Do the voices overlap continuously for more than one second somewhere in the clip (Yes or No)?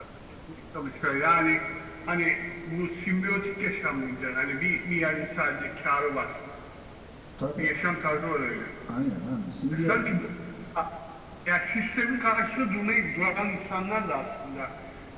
No